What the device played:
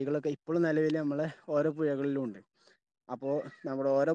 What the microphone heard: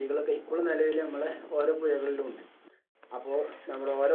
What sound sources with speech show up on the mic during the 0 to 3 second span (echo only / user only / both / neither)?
echo only